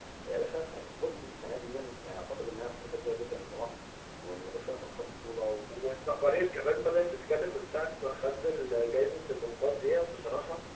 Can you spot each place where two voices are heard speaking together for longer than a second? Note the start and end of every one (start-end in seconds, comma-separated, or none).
none